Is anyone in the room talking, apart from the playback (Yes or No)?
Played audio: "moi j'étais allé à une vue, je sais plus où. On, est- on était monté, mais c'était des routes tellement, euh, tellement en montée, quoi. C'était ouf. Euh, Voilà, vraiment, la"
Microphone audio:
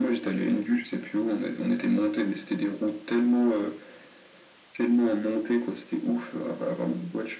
No